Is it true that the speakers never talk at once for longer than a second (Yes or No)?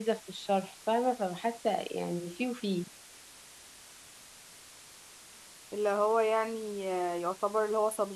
Yes